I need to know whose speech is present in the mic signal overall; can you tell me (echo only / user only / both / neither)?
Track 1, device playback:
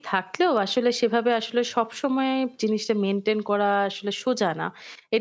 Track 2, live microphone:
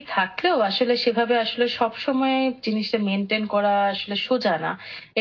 echo only